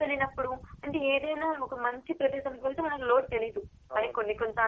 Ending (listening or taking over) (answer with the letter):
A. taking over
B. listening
B